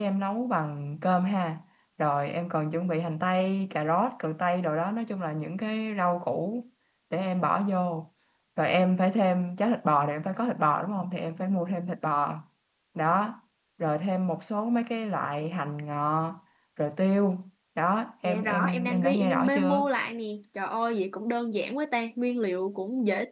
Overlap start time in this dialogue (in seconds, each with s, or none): 18.2 s